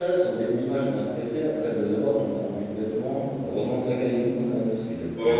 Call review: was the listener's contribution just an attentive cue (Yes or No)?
No